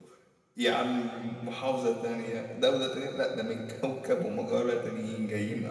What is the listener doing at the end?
taking over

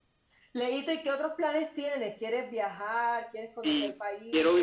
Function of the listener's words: taking over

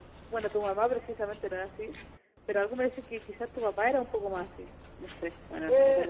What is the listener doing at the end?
taking over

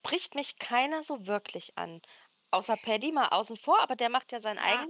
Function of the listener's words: taking over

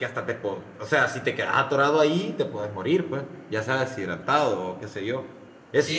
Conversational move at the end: taking over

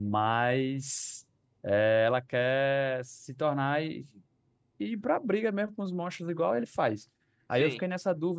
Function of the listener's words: listening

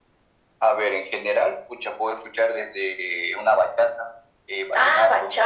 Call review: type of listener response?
taking over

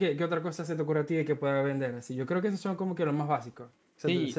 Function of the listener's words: taking over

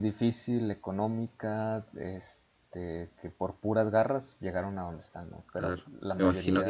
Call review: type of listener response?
taking over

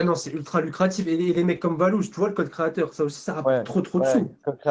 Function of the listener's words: taking over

